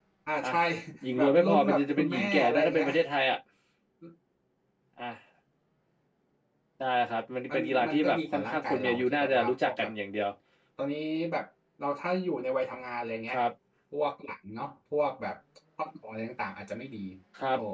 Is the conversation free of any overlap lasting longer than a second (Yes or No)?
No